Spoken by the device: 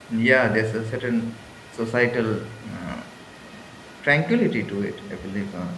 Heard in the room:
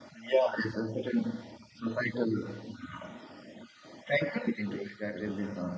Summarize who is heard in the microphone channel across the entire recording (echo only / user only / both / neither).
both